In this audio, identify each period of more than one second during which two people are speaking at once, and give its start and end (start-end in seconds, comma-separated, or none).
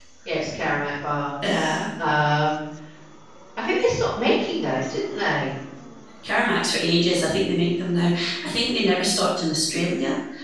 none